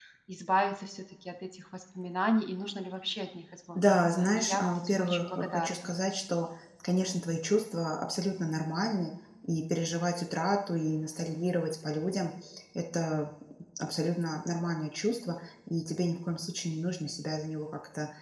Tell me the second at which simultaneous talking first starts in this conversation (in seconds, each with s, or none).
3.8 s